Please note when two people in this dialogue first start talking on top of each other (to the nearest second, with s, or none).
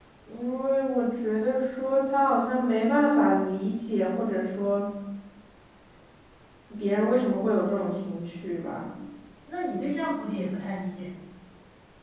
none